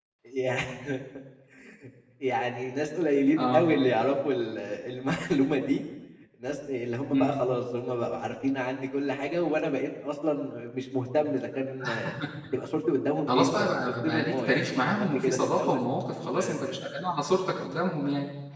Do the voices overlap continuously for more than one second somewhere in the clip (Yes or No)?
Yes